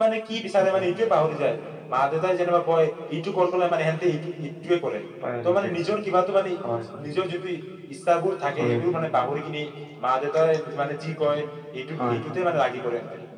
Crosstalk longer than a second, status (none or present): none